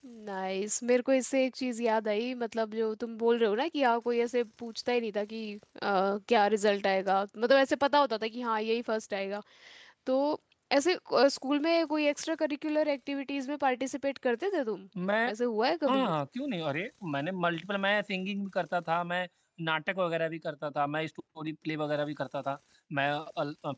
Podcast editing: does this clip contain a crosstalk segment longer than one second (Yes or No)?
No